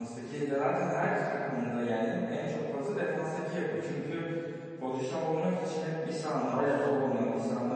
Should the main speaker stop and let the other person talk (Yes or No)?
No